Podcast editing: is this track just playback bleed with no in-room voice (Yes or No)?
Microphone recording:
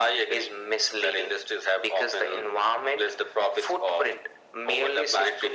Yes